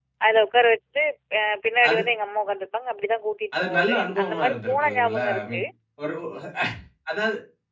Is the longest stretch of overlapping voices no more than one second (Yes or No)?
No